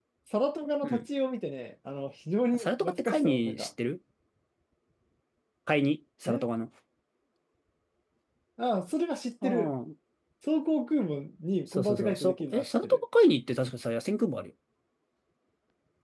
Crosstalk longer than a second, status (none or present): present